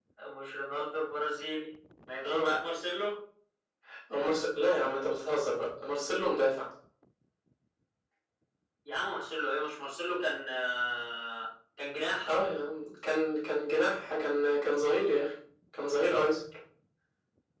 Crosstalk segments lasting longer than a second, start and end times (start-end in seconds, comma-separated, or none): none